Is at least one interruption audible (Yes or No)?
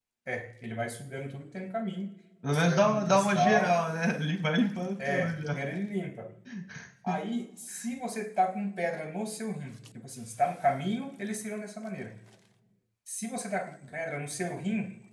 Yes